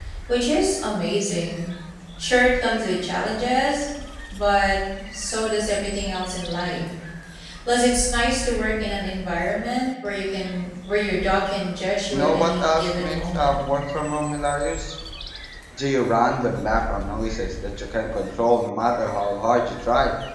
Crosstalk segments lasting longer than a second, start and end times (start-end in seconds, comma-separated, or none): 12.1-13.5